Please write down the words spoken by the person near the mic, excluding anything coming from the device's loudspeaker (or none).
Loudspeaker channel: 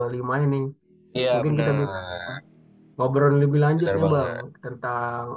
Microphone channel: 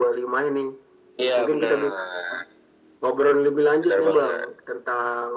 none